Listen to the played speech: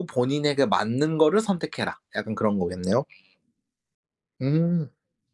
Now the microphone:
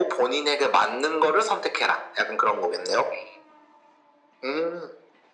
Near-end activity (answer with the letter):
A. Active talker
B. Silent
B